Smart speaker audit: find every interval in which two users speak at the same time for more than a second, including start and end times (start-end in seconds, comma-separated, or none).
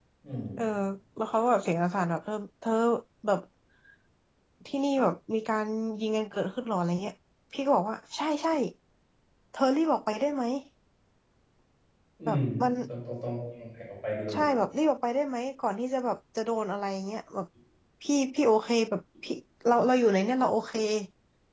none